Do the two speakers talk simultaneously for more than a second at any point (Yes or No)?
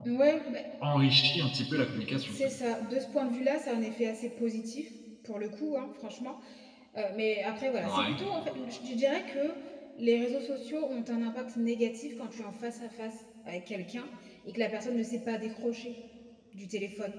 No